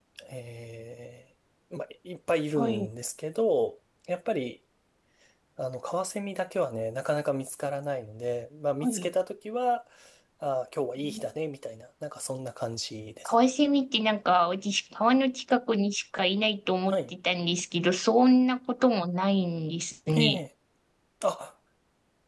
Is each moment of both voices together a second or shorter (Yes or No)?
Yes